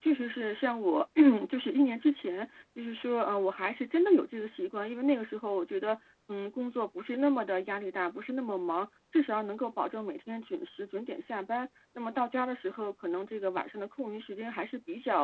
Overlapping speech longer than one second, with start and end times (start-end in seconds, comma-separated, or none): none